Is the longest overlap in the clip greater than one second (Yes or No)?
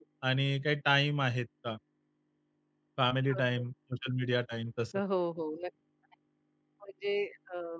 No